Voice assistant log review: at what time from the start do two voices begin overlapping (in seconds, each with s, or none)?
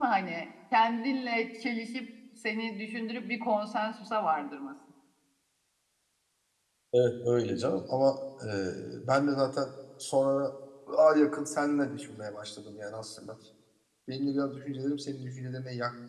none